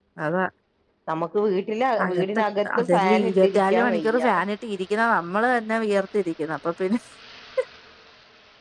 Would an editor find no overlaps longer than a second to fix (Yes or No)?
No